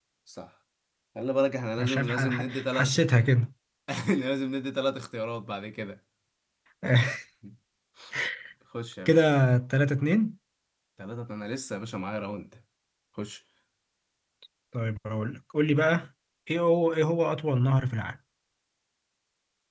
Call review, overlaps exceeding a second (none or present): present